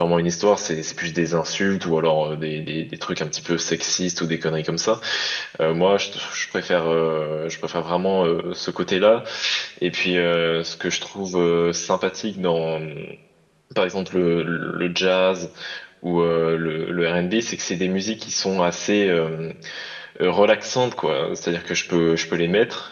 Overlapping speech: No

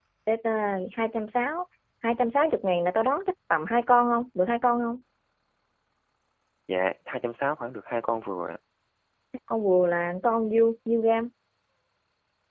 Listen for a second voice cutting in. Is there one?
No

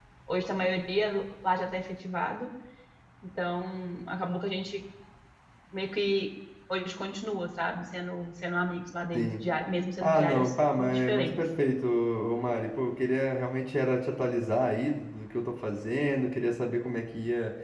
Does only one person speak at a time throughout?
No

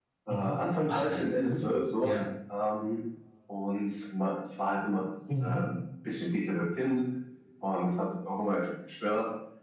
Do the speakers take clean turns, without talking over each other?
No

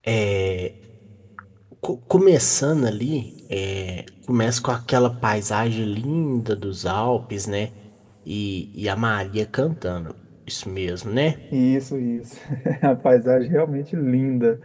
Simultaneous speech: No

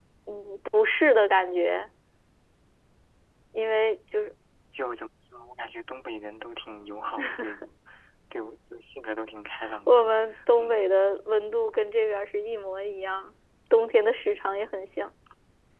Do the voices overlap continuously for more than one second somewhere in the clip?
No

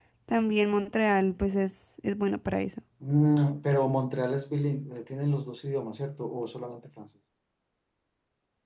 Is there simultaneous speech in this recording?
No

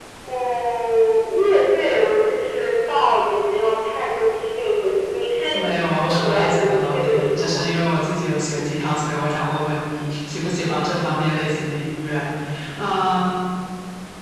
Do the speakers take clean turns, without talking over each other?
No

